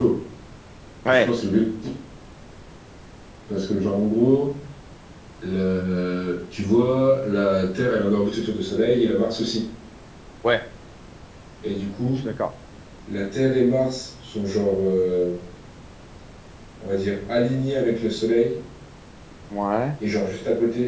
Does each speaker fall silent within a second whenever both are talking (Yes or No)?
Yes